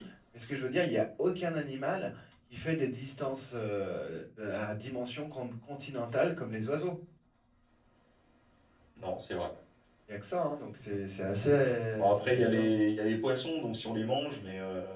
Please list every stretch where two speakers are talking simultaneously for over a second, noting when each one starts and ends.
11.4-12.7

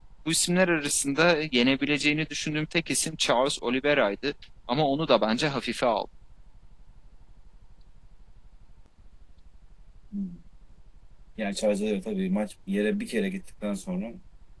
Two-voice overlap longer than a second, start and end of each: none

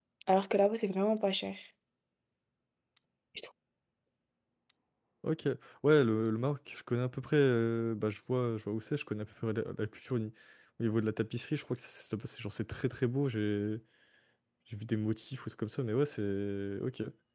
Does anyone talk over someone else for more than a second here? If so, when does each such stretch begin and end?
none

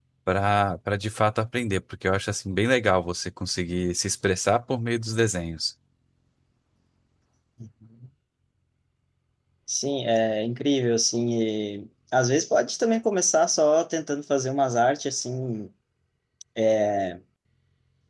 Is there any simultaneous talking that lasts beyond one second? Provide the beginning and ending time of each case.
none

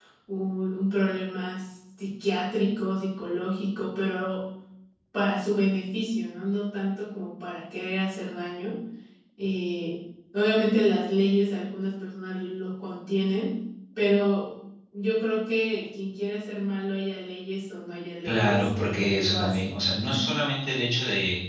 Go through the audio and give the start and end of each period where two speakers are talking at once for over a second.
18.2-19.7

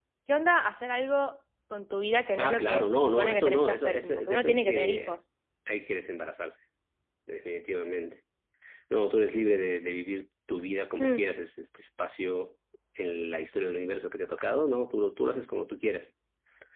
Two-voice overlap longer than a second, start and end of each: 2.4-5.2

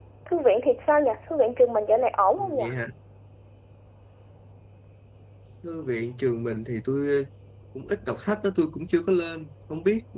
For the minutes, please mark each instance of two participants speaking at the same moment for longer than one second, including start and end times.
none

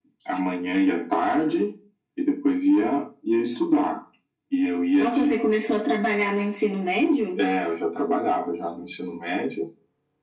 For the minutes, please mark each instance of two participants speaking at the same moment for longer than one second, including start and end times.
none

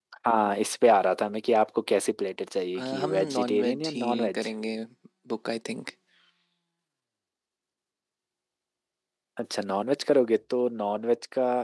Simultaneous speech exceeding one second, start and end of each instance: 2.8-4.5

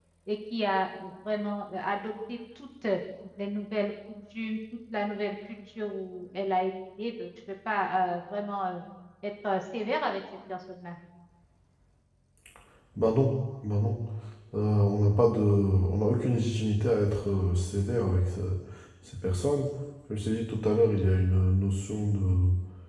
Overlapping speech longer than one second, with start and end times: none

